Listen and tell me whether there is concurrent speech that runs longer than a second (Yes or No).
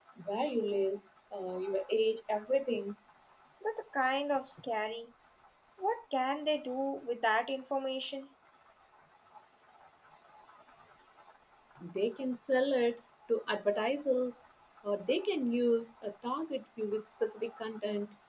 No